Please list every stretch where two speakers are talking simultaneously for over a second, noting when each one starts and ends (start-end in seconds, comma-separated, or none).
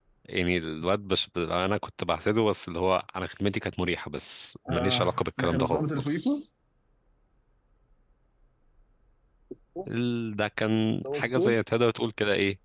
4.7-6.4